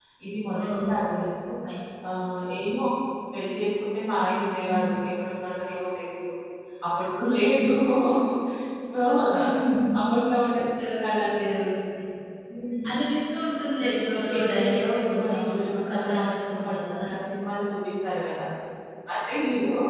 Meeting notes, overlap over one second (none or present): present